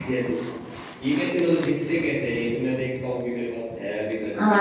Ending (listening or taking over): taking over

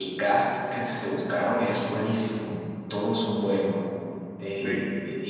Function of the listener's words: listening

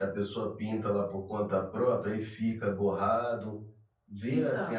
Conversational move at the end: taking over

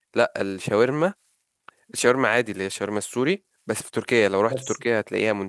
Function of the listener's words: listening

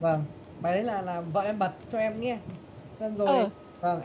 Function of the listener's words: listening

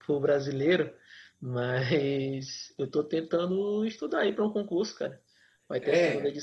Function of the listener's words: listening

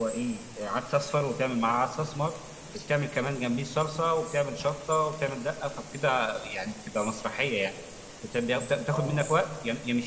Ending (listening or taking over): listening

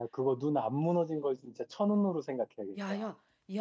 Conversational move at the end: taking over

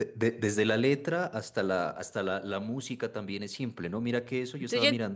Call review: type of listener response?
listening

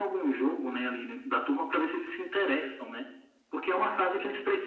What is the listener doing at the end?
listening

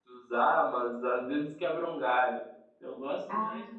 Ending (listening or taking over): listening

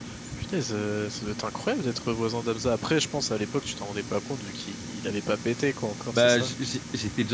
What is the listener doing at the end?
taking over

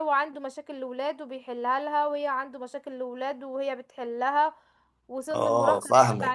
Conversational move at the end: listening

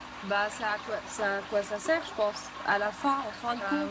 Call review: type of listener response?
listening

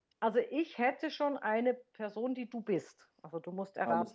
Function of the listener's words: taking over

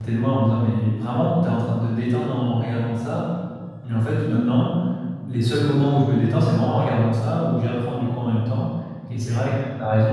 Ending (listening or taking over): listening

